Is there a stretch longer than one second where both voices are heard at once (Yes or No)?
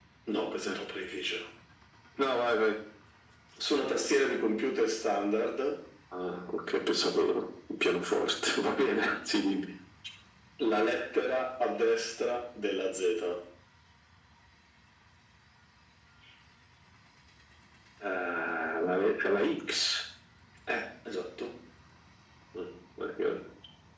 No